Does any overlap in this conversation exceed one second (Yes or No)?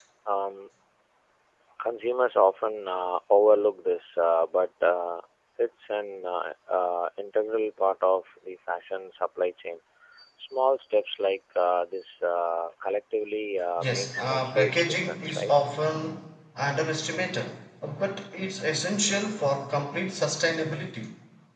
Yes